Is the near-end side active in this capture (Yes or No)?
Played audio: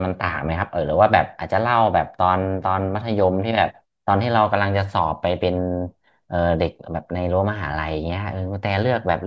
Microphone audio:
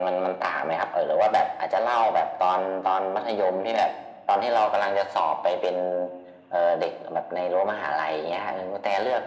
No